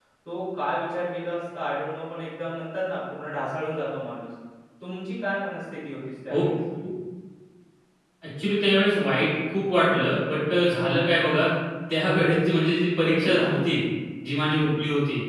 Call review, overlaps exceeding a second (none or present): none